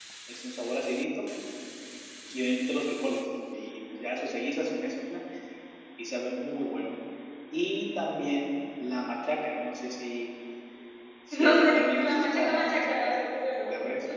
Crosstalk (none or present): present